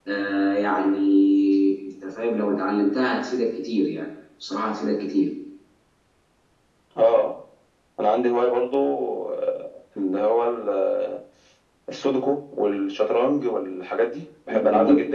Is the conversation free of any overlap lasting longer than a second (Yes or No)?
Yes